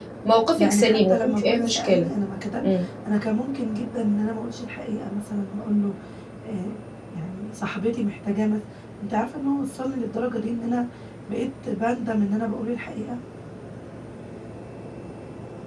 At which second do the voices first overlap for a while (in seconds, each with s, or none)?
0.6 s